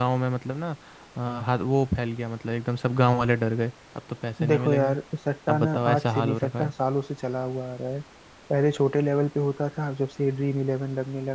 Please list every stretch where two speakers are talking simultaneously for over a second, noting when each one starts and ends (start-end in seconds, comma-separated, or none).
5.5-6.7